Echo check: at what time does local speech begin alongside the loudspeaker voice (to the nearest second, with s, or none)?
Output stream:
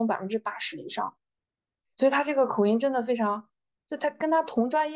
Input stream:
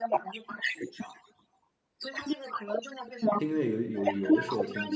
3 s